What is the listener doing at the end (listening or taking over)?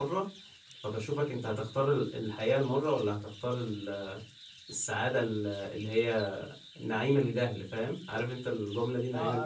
taking over